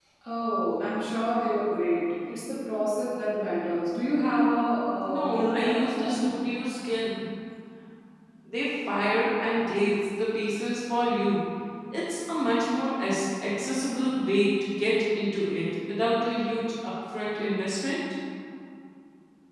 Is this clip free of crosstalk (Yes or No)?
No